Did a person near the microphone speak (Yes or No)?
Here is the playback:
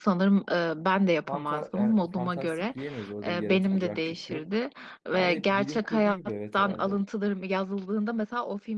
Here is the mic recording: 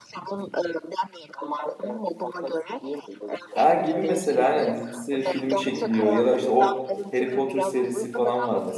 Yes